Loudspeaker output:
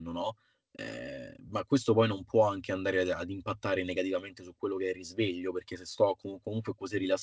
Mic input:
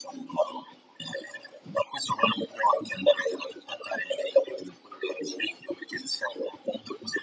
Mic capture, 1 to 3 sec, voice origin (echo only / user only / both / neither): echo only